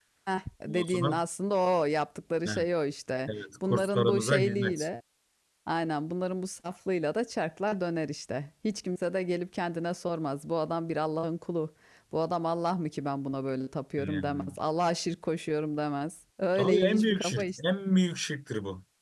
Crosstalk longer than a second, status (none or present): present